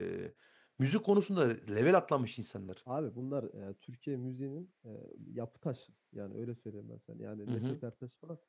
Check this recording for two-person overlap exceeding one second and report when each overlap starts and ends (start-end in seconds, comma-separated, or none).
none